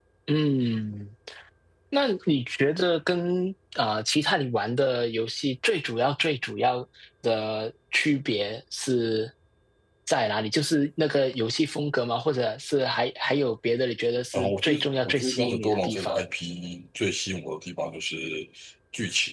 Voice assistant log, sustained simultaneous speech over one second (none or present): present